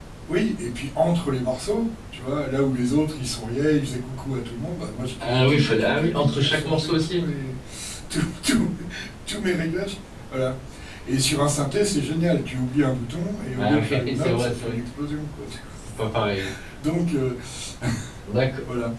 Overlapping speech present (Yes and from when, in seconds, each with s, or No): Yes, from 5.2 s